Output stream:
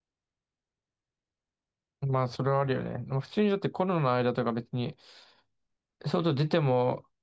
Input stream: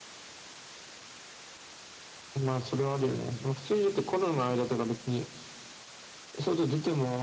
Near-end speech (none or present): none